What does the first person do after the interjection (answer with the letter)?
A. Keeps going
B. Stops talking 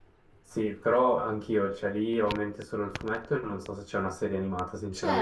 B